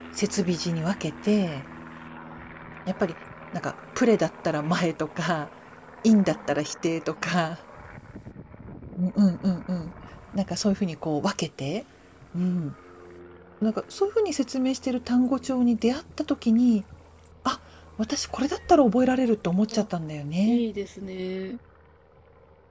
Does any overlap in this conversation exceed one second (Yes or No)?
No